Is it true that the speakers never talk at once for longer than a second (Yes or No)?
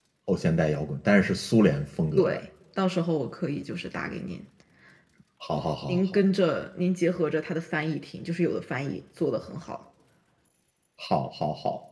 Yes